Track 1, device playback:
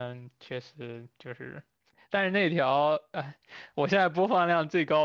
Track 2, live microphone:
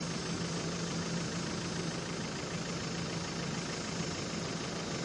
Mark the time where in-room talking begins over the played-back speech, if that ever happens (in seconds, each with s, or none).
none